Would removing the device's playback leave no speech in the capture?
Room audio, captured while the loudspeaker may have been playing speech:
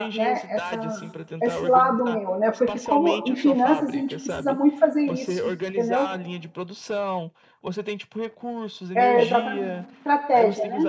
No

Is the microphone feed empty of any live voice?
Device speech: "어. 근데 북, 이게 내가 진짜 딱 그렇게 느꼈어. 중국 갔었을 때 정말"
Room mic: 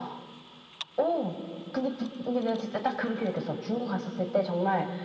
Yes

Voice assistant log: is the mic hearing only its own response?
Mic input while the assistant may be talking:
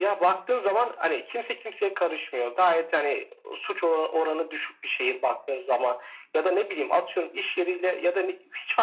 Yes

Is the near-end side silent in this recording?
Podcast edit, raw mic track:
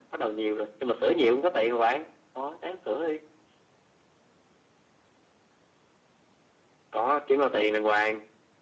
Yes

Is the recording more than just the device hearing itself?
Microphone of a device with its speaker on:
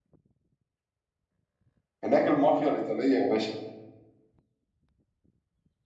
Yes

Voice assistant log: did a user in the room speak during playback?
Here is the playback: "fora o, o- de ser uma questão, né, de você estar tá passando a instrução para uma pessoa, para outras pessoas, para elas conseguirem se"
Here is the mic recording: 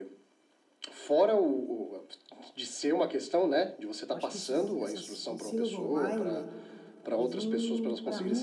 Yes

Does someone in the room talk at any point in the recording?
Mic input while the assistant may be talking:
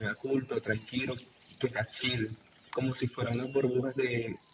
No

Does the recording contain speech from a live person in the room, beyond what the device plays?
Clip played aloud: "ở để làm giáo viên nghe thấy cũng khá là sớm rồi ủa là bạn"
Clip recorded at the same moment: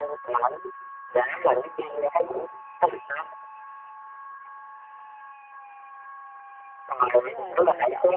Yes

